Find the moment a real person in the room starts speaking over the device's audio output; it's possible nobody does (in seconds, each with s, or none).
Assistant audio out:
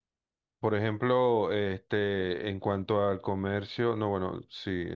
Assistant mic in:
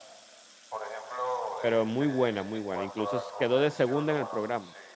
1.6 s